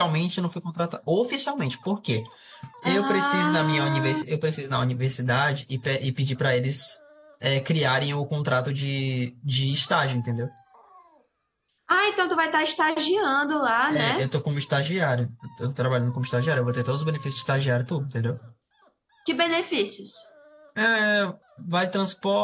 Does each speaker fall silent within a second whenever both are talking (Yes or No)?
No